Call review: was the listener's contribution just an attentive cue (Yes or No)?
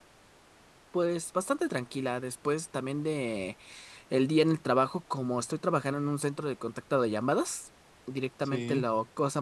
Yes